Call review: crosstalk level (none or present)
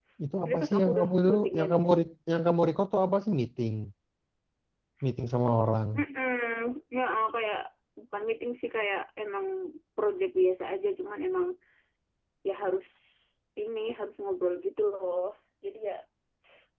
present